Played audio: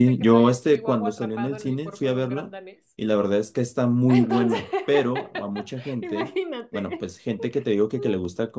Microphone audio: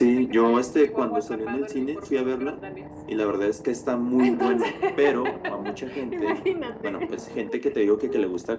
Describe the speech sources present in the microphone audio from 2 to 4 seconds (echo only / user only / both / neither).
echo only